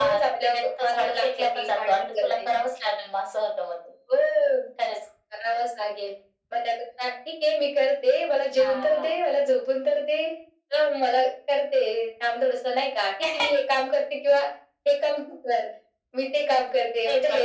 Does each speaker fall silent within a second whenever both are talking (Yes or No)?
No